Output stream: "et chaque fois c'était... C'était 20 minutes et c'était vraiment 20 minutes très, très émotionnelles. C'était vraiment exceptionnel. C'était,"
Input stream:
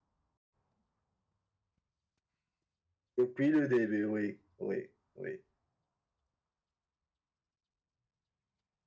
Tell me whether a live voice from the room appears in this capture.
Yes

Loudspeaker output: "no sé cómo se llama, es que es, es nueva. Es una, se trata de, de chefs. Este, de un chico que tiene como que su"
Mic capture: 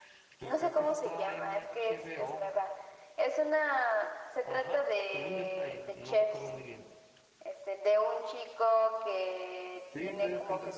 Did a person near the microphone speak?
Yes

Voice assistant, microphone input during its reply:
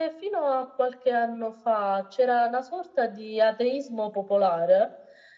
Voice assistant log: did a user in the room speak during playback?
No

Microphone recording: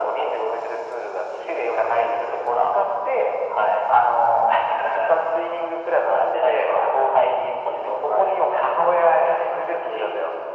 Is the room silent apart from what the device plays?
Yes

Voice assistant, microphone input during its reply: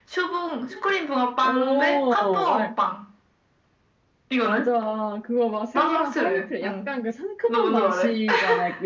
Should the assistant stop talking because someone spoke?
Yes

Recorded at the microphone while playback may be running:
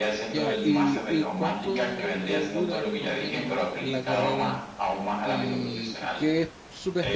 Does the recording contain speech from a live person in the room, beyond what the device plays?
Yes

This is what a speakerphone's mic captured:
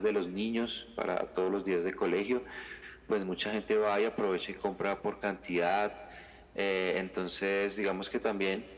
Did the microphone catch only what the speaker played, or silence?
Yes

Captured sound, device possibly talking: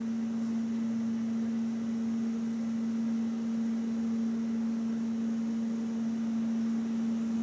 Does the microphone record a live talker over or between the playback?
No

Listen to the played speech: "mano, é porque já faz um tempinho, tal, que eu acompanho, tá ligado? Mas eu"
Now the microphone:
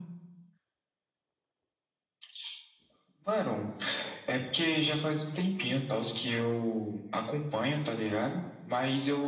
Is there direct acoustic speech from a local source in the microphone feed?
No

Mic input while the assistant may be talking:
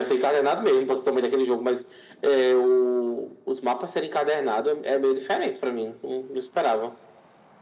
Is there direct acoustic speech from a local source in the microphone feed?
No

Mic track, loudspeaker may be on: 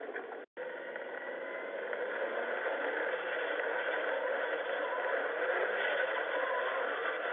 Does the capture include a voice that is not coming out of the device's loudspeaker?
No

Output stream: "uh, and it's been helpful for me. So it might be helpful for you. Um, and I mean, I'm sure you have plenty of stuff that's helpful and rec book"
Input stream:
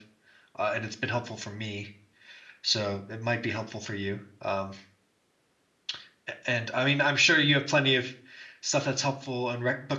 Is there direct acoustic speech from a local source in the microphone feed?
No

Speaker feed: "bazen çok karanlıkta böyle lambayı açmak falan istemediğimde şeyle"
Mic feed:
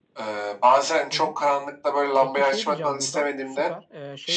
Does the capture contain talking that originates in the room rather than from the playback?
Yes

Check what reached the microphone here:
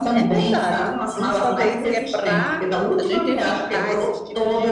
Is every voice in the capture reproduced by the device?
No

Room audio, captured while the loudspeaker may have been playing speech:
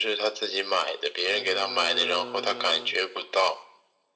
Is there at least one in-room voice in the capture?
Yes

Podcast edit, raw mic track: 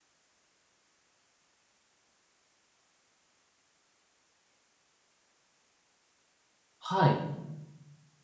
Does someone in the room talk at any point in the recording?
Yes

